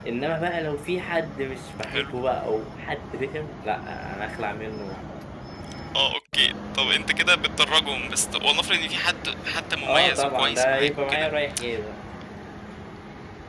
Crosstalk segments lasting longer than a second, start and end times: 9.9-11.3

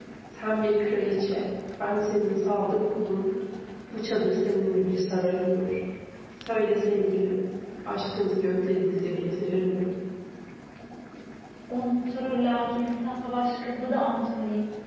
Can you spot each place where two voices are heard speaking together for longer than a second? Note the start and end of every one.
none

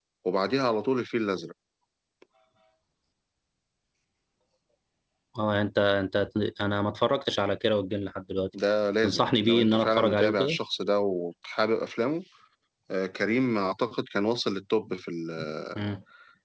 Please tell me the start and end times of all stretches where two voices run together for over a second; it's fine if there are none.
9.0-10.6

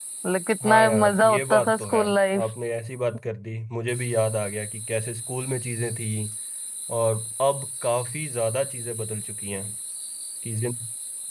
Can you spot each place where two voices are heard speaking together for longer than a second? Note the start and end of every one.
0.6-2.0

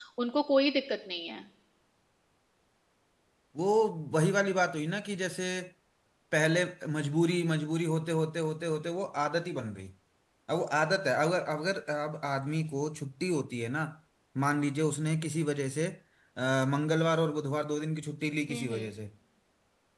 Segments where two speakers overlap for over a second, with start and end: none

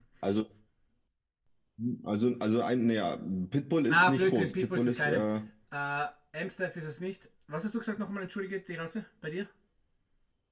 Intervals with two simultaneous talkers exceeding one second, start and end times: 3.9-5.2

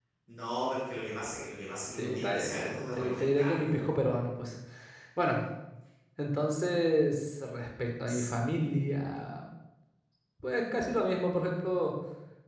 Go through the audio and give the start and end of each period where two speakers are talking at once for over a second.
1.9-3.9

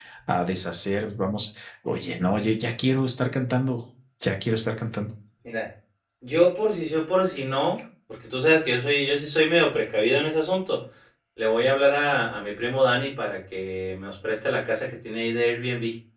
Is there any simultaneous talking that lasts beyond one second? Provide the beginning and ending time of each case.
none

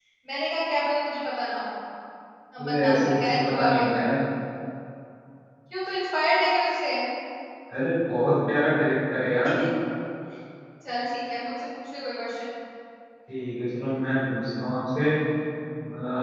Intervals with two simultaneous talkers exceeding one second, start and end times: 2.6-4.0

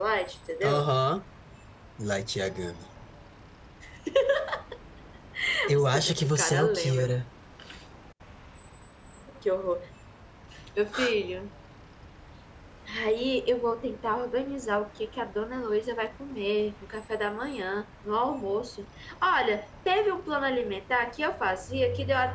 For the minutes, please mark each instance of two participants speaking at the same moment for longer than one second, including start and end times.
5.8-7.1

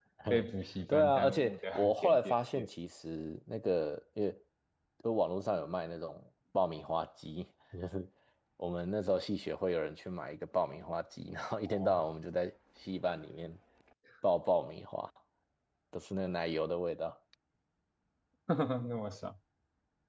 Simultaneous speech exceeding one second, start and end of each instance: 0.9-2.7

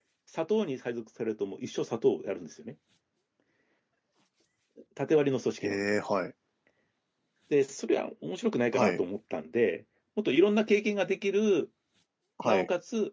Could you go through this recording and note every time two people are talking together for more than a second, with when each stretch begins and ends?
none

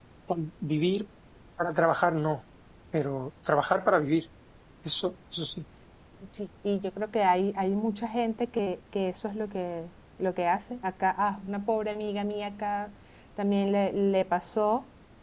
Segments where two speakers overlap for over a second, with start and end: none

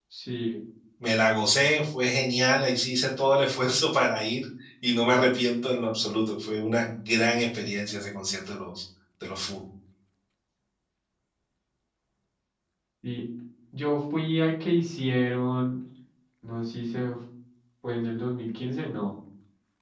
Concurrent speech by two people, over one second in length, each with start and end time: none

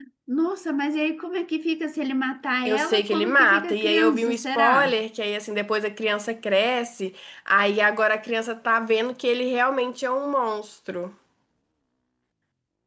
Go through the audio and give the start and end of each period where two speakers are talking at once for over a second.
2.6-5.0

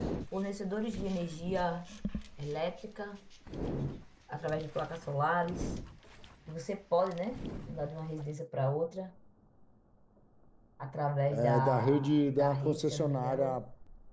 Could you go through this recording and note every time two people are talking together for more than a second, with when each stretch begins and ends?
11.3-13.4

